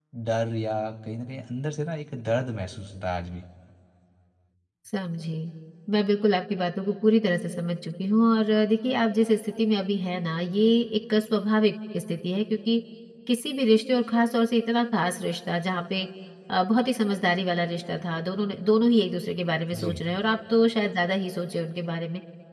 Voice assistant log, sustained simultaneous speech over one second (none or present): none